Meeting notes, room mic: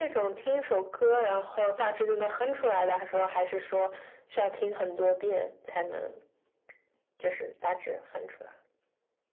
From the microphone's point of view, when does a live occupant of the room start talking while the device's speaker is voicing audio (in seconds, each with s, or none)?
none